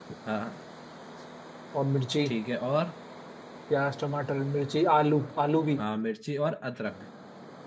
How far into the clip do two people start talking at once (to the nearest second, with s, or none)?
none